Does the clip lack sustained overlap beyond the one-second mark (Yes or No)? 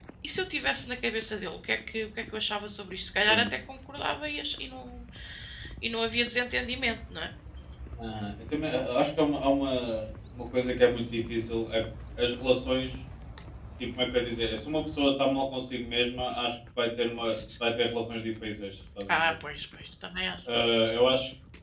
Yes